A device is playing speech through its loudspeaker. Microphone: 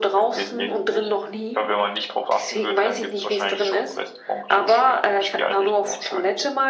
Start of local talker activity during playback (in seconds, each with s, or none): none